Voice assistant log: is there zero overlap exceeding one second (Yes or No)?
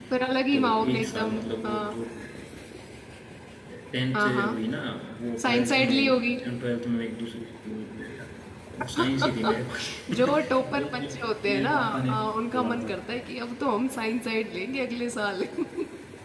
No